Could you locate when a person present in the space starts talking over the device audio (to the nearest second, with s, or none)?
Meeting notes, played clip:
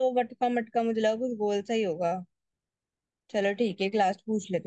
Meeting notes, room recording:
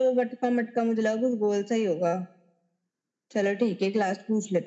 none